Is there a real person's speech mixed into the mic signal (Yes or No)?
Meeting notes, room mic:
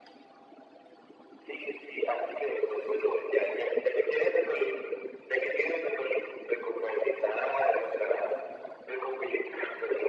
No